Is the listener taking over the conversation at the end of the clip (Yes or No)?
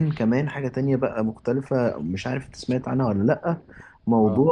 No